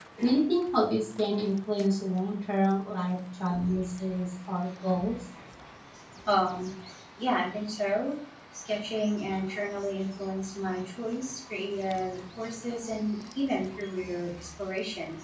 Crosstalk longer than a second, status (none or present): none